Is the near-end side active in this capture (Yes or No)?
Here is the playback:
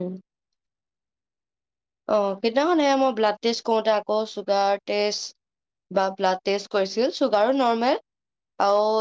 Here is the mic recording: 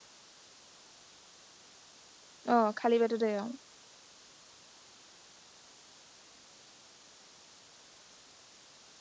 Yes